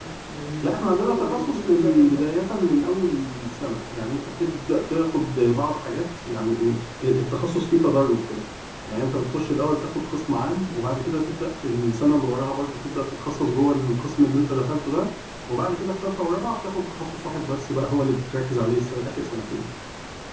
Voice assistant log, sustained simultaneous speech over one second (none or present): present